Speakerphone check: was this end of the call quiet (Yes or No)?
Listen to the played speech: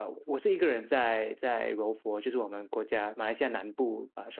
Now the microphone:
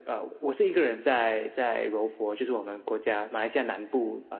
Yes